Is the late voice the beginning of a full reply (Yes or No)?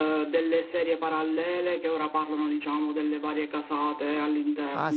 Yes